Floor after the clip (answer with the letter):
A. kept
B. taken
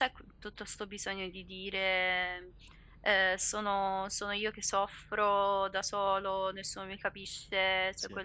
A